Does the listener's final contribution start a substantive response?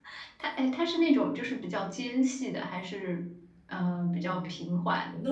Yes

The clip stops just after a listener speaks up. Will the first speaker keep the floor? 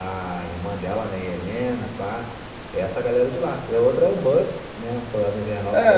No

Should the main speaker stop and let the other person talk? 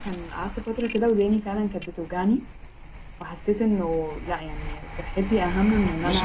Yes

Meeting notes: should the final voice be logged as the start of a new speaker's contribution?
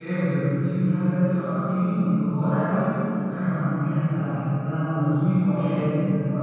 No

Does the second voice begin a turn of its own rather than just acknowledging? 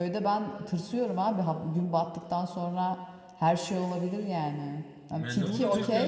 Yes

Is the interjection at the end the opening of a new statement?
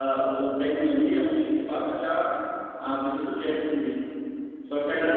No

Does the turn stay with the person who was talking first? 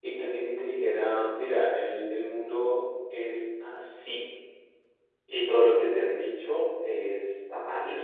Yes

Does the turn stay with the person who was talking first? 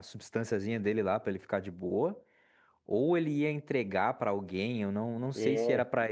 Yes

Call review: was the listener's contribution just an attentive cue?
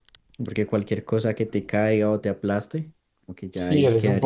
No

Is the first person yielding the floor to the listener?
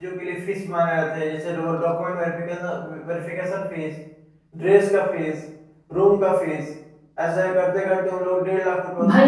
Yes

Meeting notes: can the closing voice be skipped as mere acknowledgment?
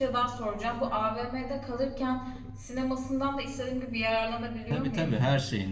No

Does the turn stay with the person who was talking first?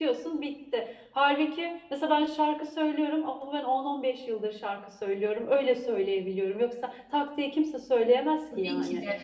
No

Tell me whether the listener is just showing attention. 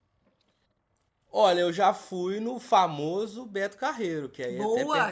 No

